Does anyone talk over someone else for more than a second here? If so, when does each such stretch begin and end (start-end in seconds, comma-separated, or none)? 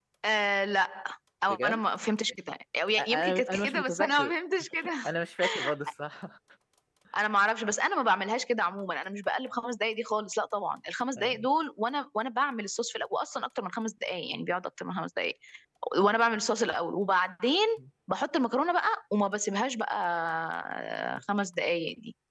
3.0-4.3